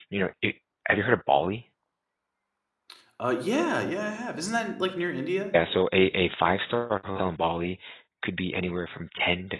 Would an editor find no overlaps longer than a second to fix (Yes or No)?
Yes